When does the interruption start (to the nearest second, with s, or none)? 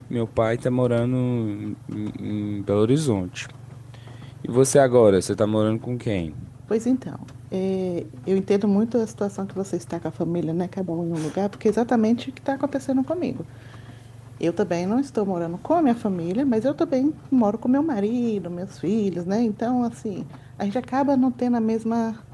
none